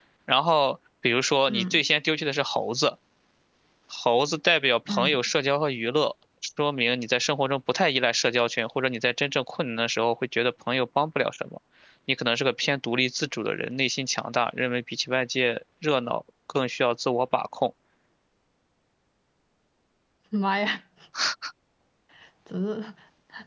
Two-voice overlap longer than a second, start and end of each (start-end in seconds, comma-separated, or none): none